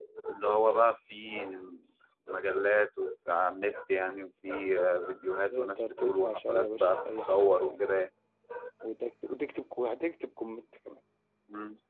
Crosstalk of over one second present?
Yes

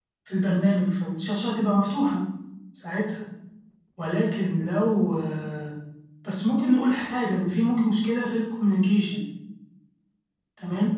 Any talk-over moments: No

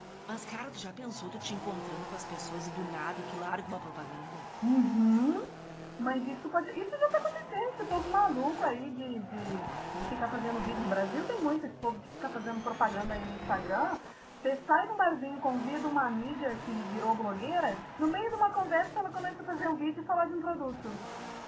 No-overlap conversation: Yes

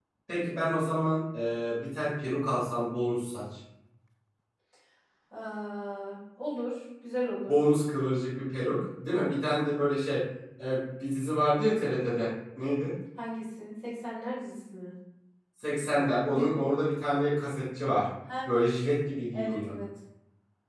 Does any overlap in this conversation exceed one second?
No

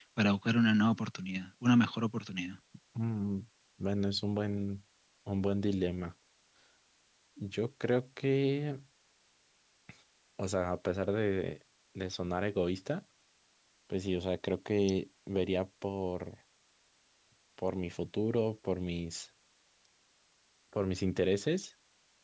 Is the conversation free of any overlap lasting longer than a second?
Yes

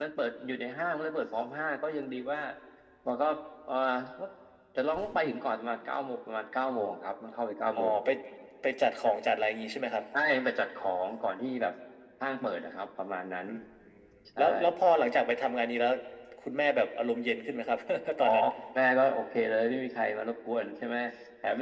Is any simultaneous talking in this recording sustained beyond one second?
No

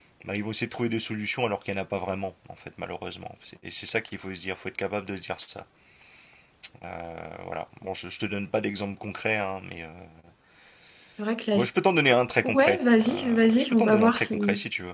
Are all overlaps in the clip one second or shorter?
No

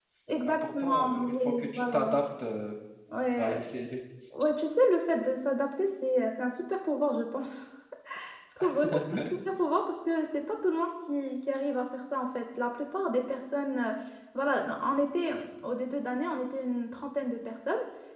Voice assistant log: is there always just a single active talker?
No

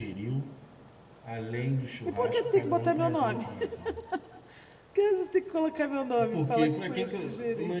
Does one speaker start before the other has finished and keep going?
Yes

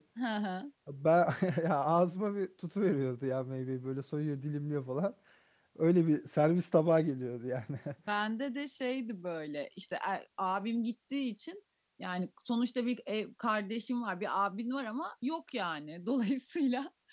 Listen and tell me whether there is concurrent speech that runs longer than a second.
No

